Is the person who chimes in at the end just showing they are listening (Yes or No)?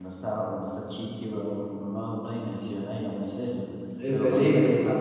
Yes